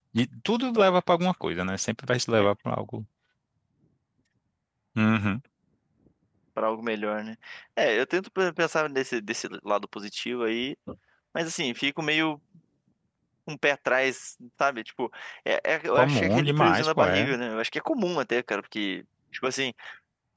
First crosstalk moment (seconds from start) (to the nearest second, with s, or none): 16 s